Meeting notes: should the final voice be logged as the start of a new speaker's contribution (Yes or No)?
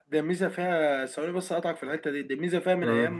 No